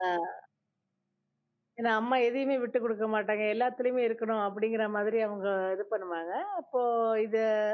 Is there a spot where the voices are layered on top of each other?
No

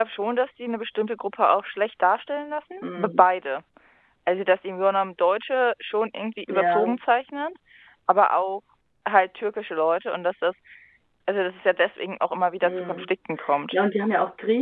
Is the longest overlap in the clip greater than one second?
No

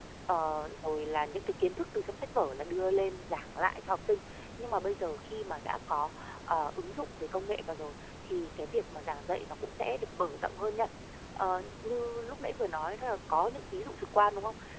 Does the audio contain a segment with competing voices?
No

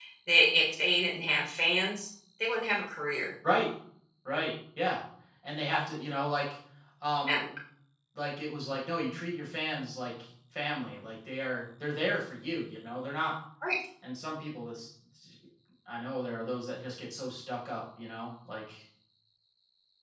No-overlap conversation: Yes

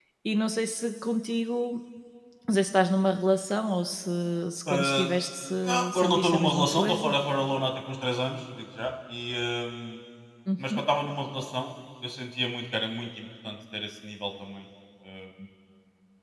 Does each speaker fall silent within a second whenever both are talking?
No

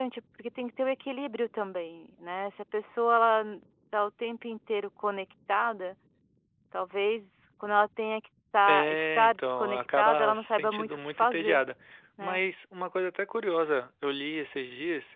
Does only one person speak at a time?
No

